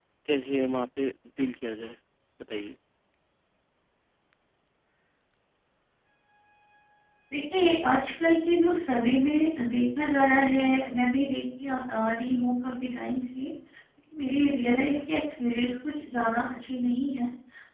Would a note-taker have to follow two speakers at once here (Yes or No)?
No